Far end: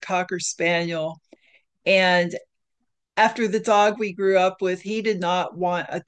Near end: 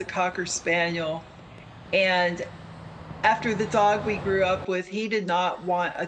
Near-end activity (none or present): none